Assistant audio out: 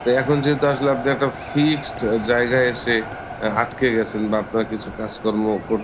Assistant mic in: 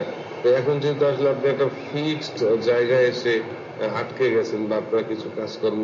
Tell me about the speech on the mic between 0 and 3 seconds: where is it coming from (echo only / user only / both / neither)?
echo only